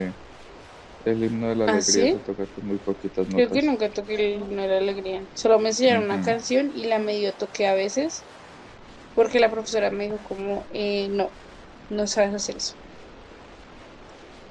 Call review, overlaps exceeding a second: none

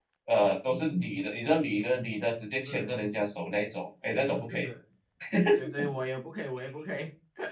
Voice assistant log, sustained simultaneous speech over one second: none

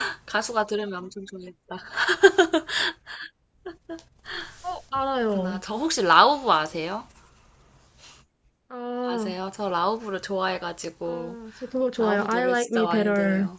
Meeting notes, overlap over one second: present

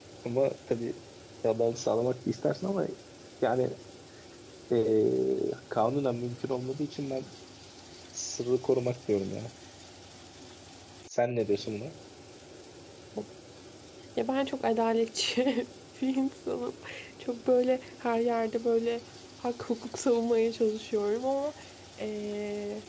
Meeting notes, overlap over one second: none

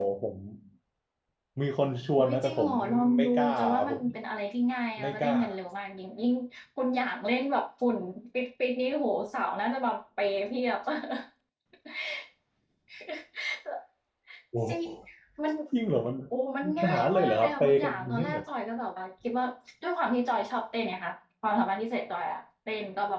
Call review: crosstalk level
present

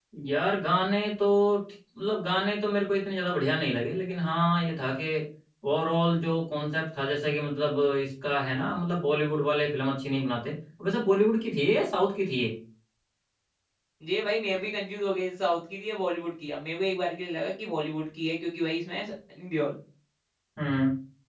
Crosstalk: none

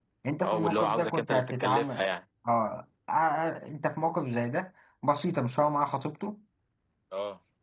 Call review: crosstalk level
present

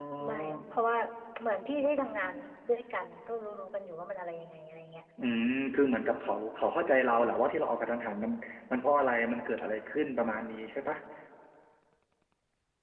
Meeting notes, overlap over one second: none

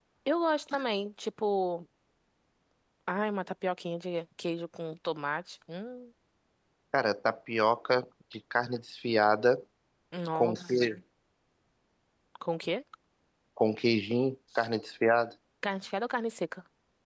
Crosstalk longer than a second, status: none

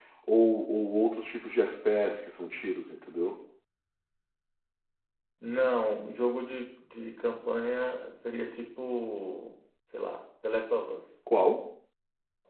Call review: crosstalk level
none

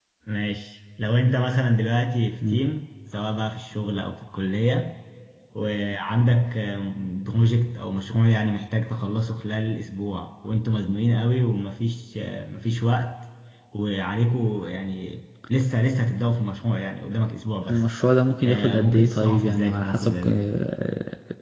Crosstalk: present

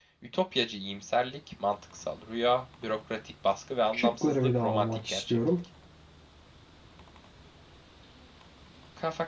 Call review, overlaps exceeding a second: present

